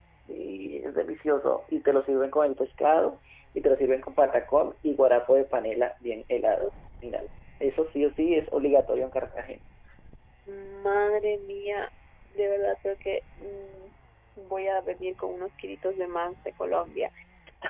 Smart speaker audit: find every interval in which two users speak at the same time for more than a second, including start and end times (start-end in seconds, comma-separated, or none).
none